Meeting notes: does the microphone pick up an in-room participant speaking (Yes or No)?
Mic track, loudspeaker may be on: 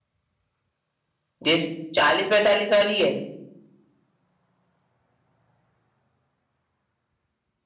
Yes